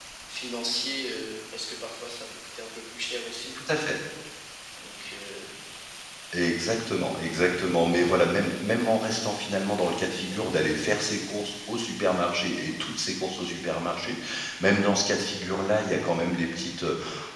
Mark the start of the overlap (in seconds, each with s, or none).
none